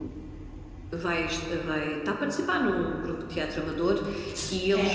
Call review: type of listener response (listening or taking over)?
listening